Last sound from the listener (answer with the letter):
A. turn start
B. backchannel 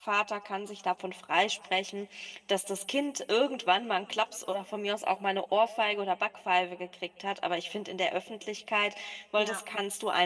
B